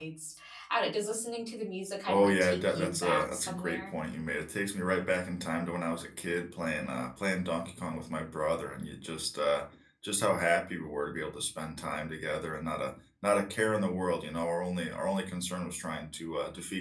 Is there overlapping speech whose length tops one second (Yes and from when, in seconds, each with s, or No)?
Yes, from 2.1 s